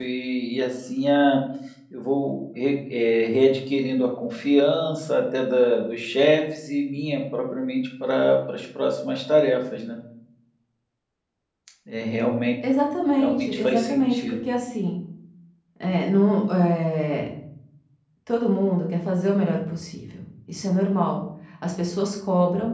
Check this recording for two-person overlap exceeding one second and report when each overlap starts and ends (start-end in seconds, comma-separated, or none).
13.2-14.4